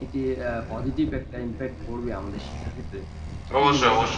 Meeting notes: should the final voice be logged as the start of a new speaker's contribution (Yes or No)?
Yes